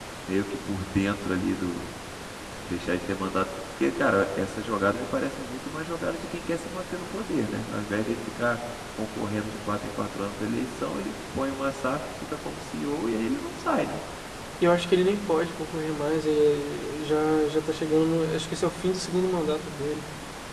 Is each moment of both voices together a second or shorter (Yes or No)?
Yes